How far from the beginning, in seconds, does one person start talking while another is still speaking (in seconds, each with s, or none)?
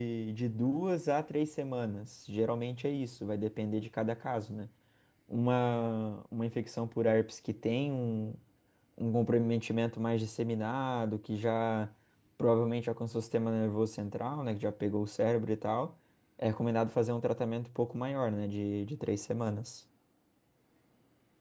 none